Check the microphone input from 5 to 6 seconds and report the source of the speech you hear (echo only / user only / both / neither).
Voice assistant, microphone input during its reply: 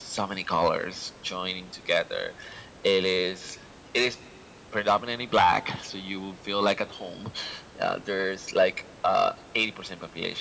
echo only